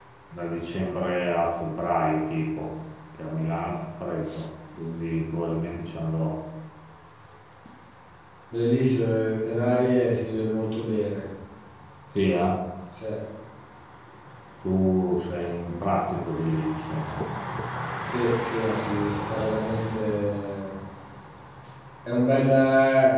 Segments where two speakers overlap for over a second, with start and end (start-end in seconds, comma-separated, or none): none